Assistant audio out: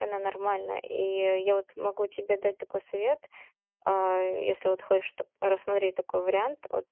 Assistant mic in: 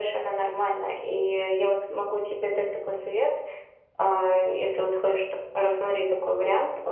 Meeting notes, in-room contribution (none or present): none